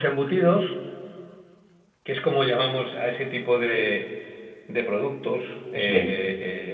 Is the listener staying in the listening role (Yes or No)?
Yes